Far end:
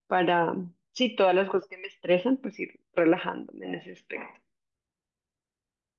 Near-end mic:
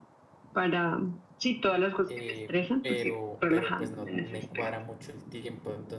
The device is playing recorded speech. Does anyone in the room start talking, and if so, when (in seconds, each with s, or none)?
2.1 s